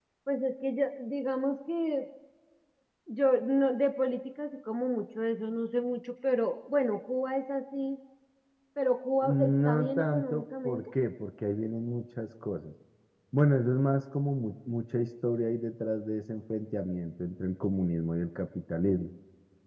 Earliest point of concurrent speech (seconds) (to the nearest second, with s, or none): 9 s